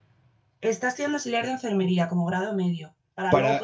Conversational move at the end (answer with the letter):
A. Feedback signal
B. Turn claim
A